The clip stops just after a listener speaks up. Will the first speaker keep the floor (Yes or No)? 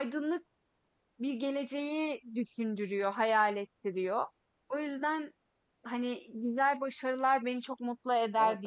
No